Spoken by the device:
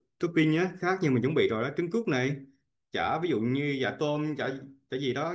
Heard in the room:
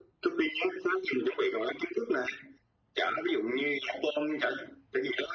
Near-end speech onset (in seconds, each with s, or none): none